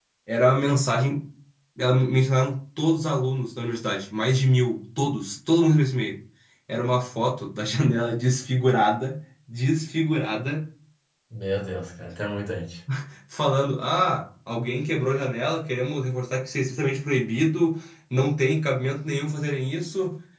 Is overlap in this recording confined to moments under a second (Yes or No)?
Yes